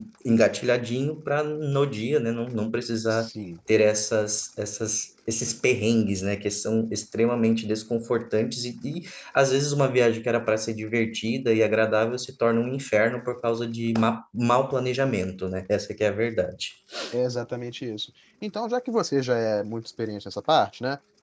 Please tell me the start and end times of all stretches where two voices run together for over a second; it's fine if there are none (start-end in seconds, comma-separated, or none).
none